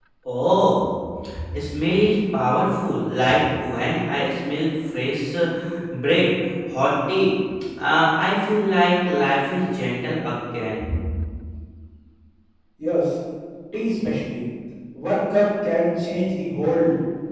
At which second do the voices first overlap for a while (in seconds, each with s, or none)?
none